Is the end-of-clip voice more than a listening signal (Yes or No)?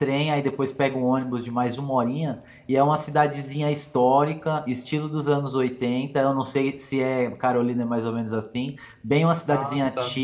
No